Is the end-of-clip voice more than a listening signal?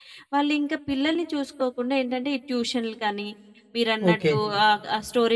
No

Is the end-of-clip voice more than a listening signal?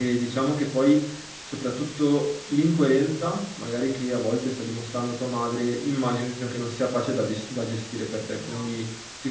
No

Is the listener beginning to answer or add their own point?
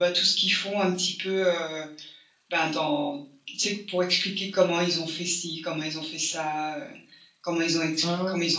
No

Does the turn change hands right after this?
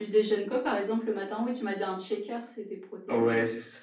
Yes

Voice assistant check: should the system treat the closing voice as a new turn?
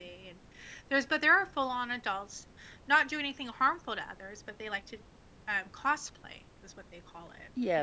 Yes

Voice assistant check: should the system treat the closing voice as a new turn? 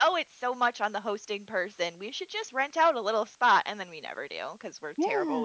Yes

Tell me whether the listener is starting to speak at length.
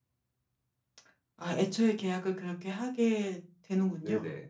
Yes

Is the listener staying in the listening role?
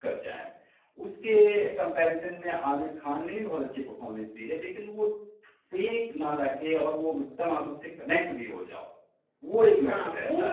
No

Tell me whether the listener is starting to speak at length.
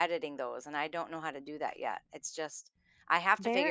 Yes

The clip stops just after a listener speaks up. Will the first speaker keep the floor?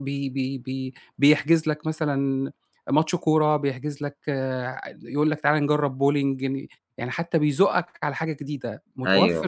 Yes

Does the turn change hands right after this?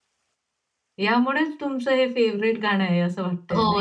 Yes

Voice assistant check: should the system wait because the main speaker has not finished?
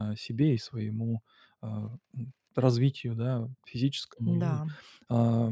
Yes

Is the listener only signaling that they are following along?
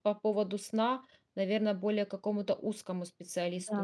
No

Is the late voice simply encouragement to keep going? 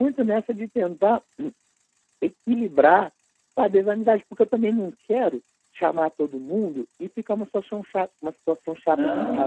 No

